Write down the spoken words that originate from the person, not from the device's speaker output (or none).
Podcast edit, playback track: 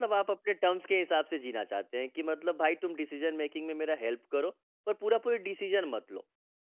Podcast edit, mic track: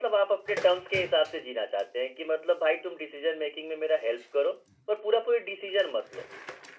none